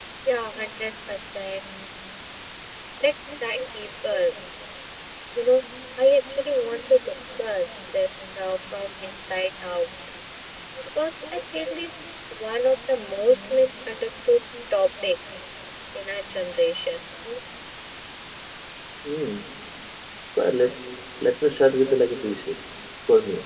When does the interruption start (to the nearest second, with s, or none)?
none